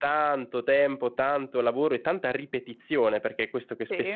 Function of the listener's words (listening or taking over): listening